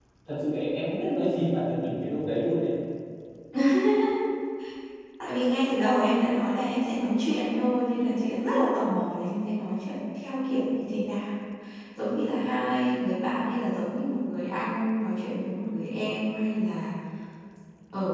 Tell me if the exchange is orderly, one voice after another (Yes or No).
Yes